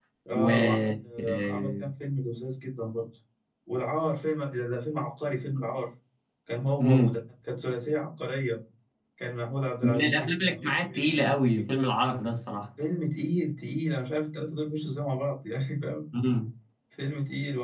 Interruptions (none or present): present